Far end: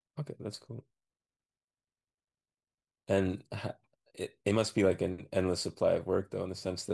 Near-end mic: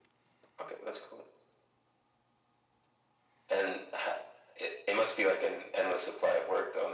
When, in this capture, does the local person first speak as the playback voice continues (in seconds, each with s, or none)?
none